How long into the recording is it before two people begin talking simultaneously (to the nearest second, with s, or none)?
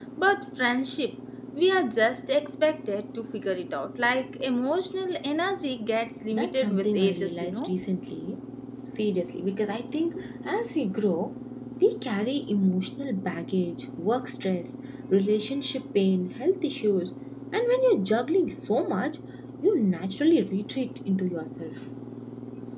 6 s